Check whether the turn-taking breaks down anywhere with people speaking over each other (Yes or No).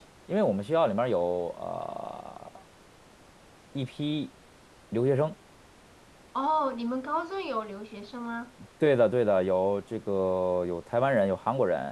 No